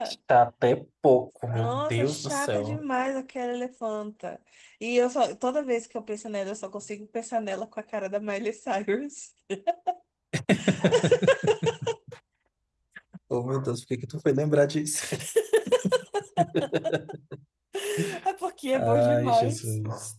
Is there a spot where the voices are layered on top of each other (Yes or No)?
Yes